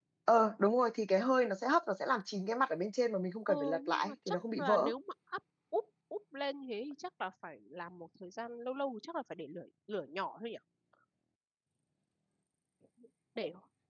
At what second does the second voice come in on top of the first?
3.5 s

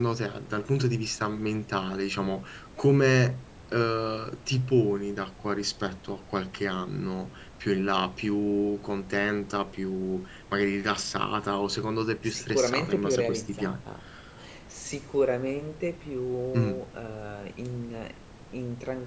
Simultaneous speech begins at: 12.2 s

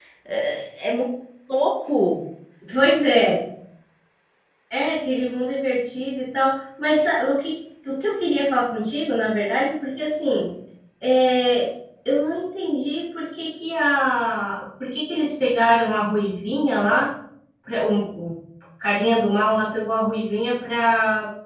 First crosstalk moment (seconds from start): none

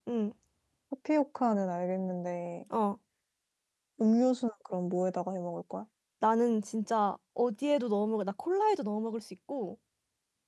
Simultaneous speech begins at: none

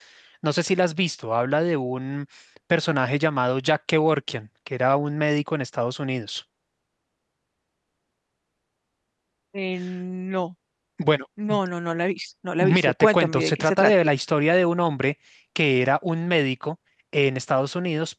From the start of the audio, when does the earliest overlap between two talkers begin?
12.6 s

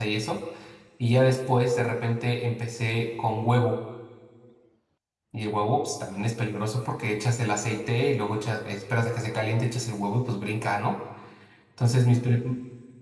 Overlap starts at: none

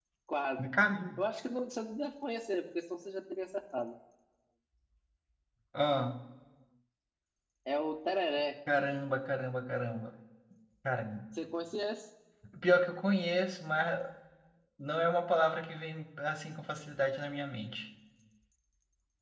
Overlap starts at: none

